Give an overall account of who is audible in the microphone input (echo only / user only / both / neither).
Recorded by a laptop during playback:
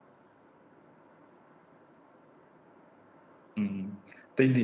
user only